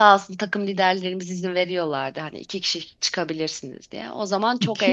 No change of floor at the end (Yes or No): No